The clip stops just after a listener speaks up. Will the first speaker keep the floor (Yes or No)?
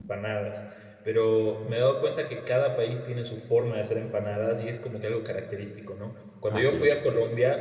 Yes